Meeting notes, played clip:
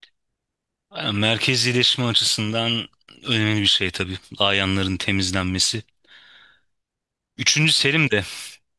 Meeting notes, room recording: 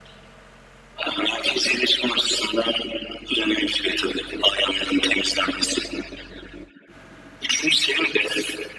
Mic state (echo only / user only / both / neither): echo only